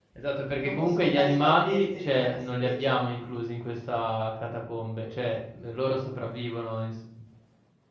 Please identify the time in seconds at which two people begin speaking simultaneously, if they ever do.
0.6 s

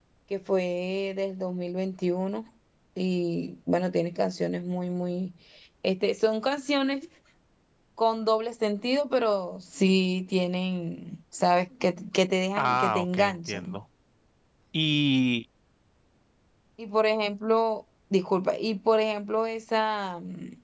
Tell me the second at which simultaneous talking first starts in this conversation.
12.6 s

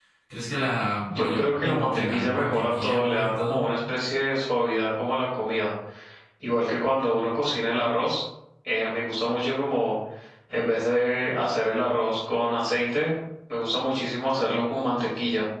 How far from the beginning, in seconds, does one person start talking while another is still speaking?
1.1 s

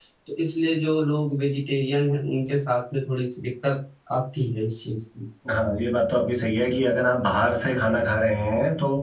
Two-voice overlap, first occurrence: none

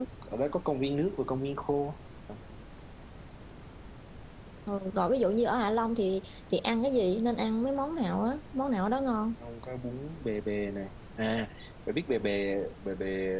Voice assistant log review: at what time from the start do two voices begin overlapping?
none

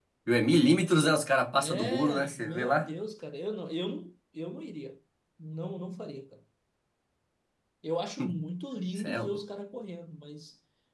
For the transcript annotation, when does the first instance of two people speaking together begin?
1.6 s

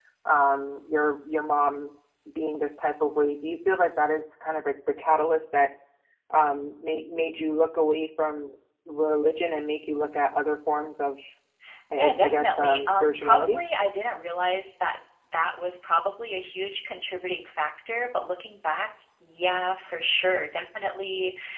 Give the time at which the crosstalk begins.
11.9 s

